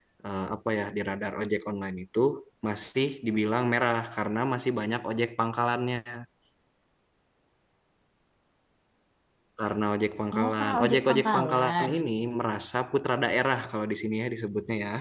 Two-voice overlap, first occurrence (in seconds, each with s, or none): 10.4 s